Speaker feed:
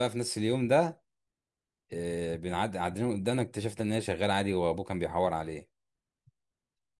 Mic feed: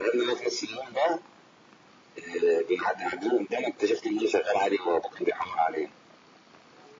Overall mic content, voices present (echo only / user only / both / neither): echo only